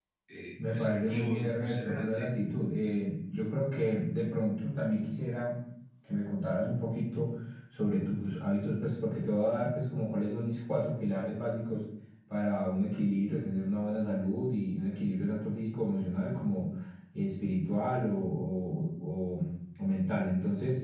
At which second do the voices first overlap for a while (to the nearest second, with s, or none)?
1 s